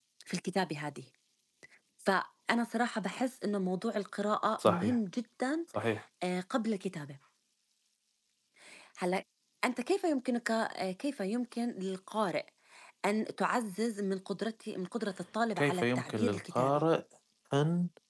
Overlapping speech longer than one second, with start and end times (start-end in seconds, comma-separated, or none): 15.6-16.8